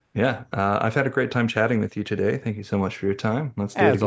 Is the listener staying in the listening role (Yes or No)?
No